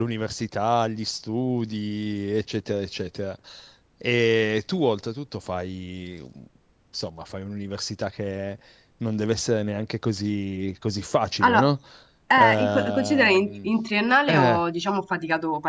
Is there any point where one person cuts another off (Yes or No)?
Yes